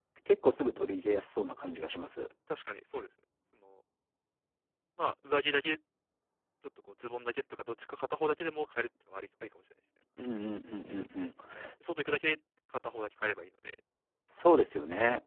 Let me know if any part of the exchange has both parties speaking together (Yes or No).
No